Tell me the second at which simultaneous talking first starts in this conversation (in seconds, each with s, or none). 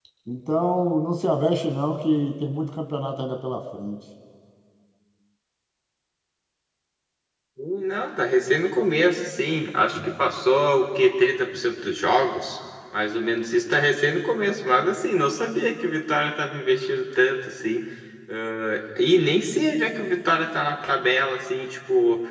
none